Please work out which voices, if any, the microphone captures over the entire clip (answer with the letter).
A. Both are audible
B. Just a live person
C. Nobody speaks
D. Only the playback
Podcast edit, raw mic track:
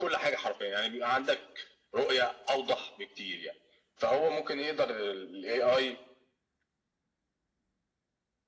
D